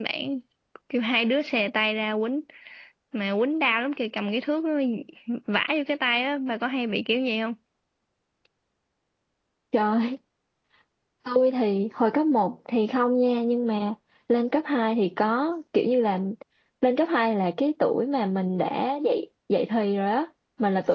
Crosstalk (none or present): none